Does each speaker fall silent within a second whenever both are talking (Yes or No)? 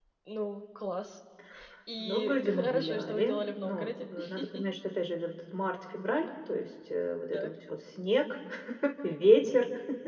No